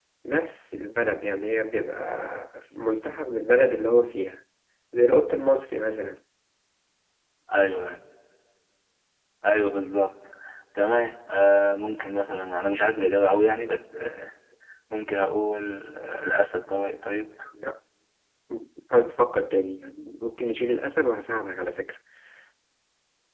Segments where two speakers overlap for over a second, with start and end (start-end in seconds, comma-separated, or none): none